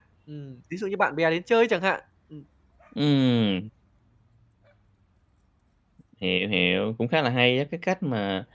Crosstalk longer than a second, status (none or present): none